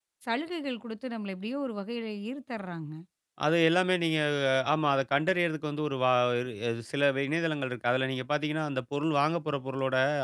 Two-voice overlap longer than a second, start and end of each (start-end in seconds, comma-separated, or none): none